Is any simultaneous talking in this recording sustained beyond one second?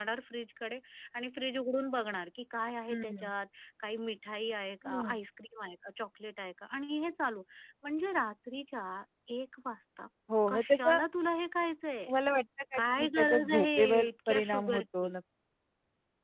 Yes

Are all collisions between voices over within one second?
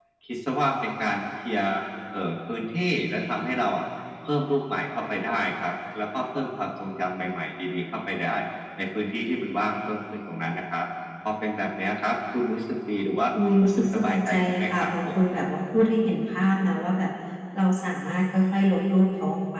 No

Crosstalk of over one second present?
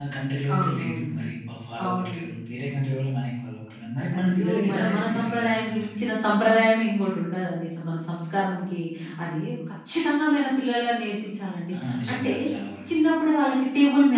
Yes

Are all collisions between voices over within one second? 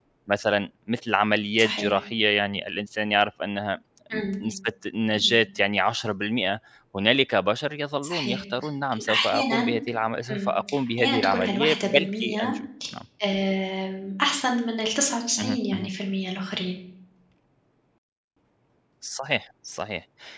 No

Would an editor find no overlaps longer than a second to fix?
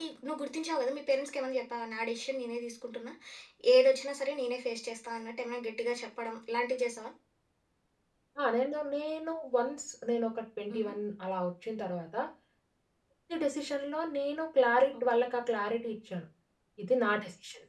Yes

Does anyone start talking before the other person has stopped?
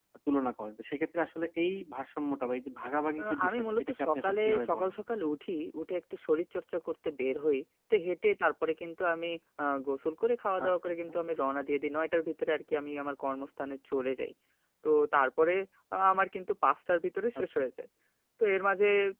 Yes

